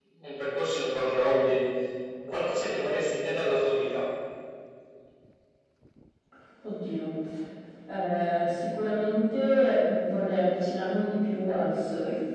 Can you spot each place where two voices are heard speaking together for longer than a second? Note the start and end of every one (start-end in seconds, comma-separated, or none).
none